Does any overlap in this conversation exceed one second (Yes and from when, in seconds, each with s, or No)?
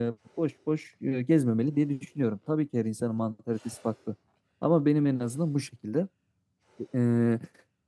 No